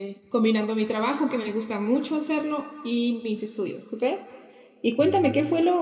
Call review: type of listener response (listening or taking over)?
listening